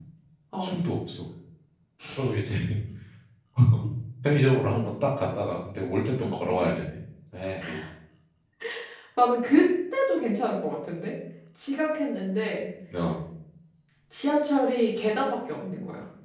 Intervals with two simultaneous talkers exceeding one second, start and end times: none

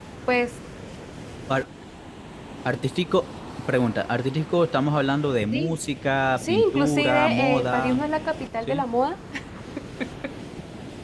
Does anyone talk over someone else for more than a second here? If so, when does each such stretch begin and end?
6.4-8.0

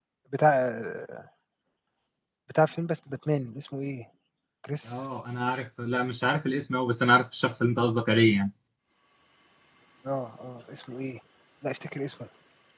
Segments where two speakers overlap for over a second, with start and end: none

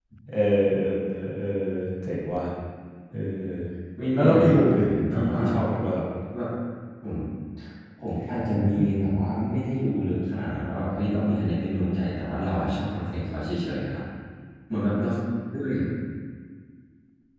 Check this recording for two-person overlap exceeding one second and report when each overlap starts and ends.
4.1-5.4

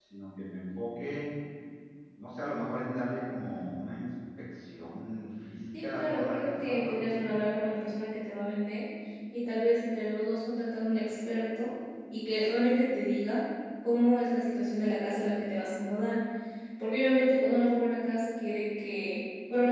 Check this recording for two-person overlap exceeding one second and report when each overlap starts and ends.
5.8-7.3

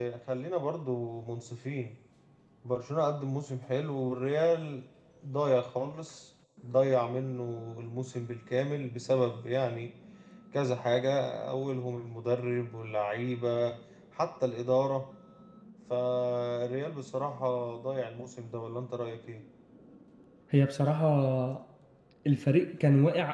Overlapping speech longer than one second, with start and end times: none

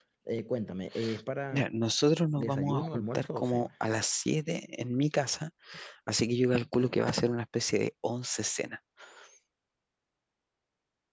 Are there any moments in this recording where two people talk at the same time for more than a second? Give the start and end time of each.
2.4-3.7

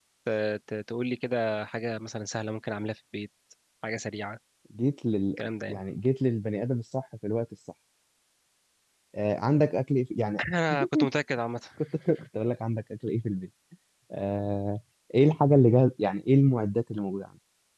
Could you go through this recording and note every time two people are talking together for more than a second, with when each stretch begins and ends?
none

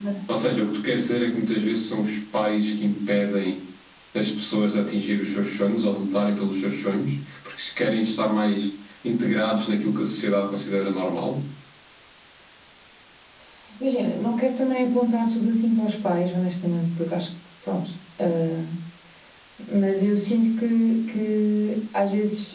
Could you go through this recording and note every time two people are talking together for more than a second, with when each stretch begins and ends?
none

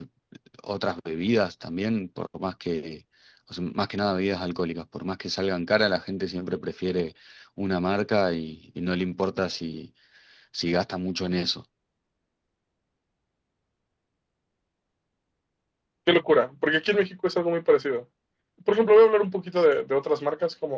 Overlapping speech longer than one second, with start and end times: none

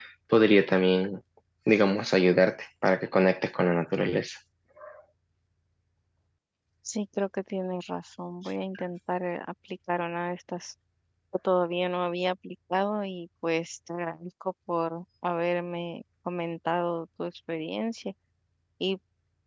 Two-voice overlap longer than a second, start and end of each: none

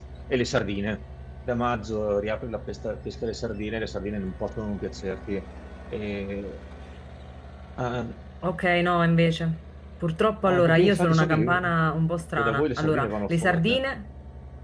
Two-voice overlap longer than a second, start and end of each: 10.5-11.7, 12.4-13.8

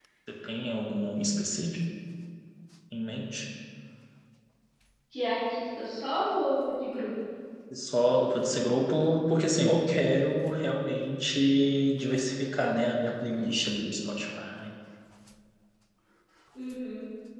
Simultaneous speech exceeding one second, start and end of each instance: none

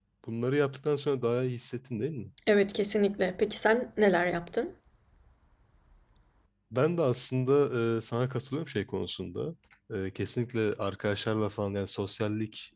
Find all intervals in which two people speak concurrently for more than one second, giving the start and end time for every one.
none

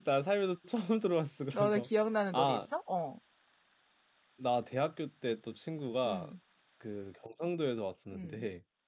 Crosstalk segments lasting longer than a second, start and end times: none

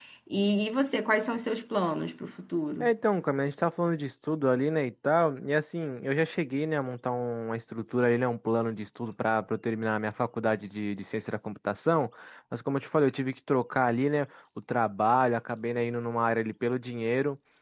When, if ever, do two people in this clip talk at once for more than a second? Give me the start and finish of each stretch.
none

